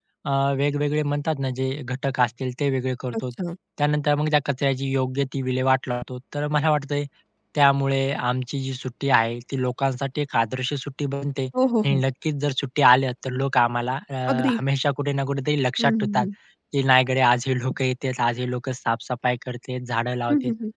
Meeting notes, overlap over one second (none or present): none